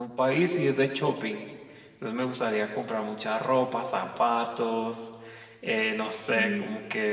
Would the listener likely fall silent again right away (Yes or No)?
Yes